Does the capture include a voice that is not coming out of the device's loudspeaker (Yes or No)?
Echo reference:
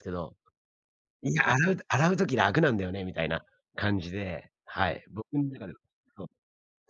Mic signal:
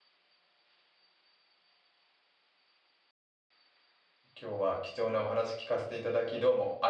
Yes